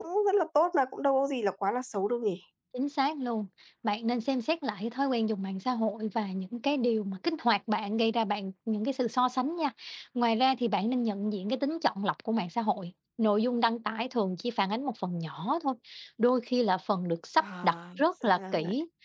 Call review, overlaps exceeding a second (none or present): present